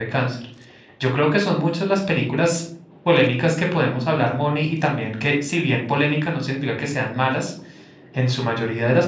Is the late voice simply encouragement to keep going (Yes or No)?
Yes